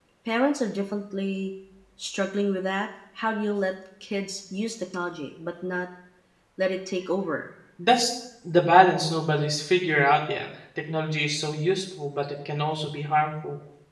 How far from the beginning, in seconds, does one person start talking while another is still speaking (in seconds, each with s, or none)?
none